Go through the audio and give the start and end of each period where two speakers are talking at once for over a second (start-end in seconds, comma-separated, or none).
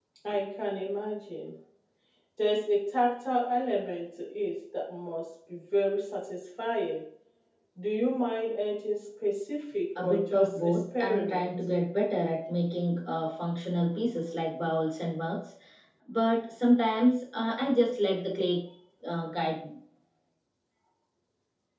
10.0-11.5